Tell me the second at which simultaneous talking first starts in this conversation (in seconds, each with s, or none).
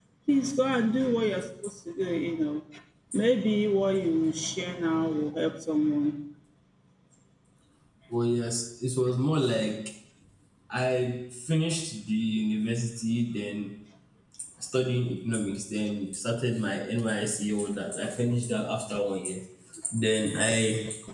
none